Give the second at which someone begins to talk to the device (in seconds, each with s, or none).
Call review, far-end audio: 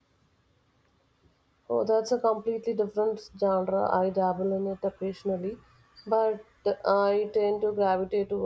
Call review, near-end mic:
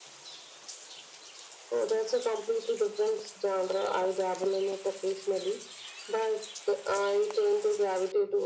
none